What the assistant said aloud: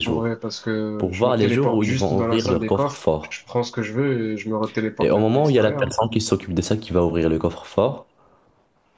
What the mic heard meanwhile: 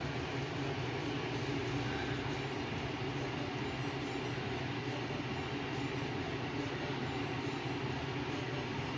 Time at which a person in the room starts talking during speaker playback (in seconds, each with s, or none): none